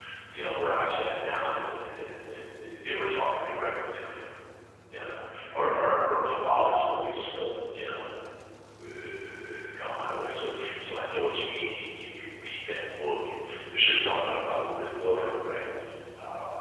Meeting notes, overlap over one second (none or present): none